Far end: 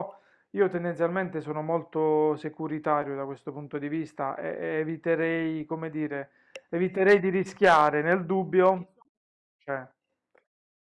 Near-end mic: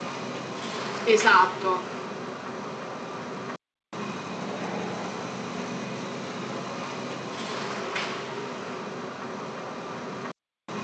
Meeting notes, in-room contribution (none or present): present